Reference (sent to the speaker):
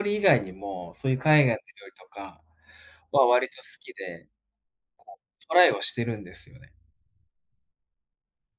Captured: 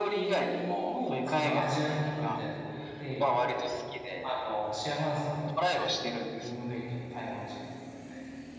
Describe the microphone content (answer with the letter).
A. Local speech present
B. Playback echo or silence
A